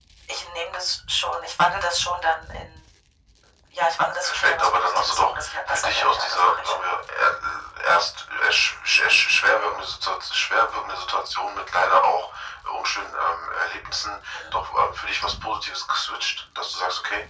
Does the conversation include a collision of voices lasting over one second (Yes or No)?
Yes